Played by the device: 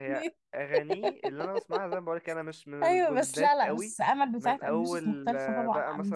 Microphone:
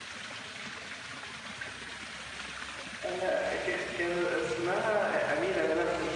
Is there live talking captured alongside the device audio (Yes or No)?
Yes